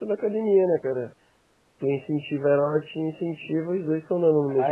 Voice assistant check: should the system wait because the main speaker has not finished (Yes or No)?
No